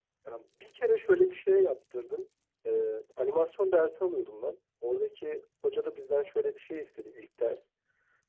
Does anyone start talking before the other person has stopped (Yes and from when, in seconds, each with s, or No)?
No